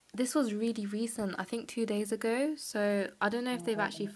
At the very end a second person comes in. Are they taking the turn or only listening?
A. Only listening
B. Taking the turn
A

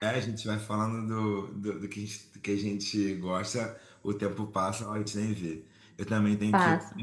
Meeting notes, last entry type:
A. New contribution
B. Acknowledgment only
B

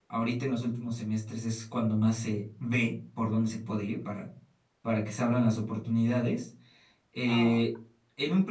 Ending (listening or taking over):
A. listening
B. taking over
A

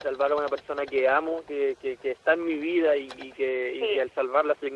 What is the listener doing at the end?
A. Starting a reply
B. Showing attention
B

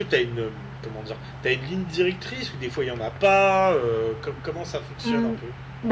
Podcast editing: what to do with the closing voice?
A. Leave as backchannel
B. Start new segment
B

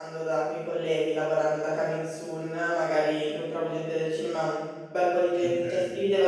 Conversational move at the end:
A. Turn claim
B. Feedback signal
B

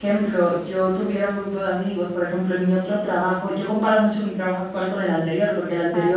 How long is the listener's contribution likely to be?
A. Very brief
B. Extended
A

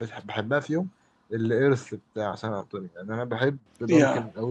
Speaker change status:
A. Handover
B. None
B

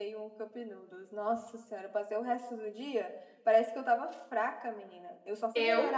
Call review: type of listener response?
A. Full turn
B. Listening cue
B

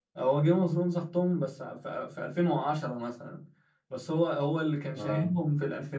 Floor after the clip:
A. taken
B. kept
B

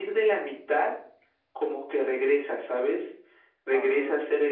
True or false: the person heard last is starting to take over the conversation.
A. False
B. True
A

